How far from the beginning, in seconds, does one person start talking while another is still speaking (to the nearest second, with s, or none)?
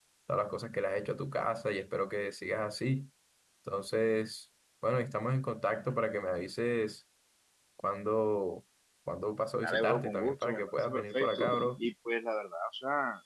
10 s